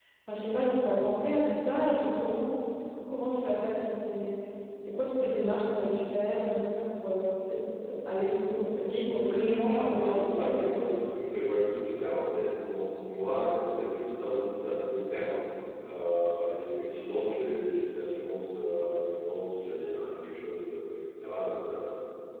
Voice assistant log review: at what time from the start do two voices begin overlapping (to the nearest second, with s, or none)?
9 s